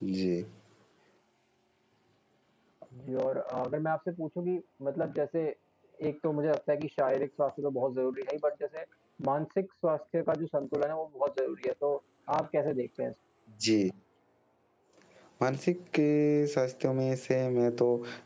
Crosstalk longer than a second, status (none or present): none